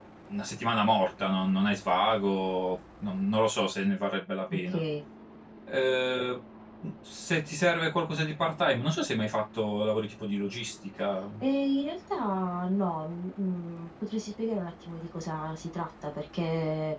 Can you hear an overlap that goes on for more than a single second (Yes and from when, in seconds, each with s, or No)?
No